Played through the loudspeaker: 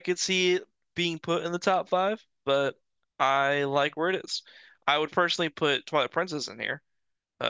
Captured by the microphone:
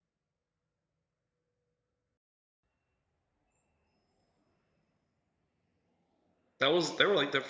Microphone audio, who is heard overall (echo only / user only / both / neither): user only